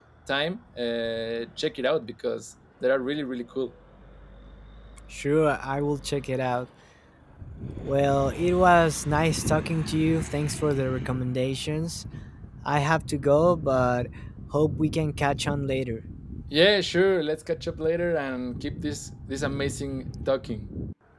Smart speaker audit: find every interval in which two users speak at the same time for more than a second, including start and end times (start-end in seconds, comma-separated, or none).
none